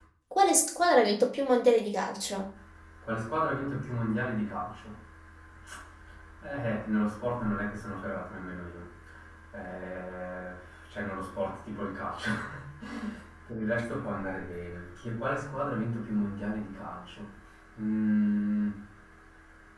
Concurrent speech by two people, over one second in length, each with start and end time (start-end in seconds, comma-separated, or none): none